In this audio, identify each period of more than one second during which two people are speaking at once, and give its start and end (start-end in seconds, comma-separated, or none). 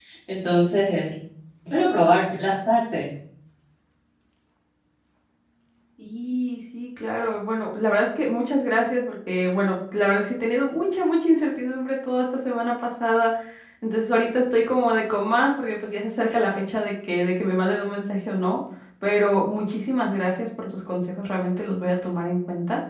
none